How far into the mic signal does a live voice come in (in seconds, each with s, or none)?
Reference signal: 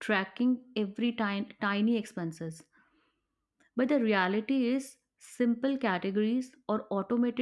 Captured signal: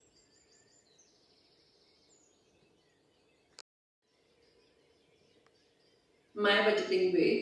6.4 s